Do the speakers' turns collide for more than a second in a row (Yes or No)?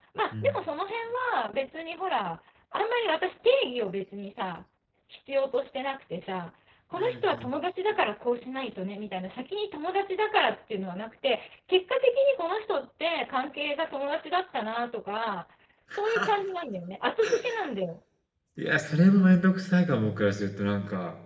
No